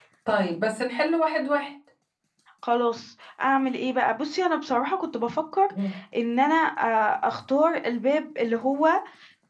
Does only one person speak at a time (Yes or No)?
Yes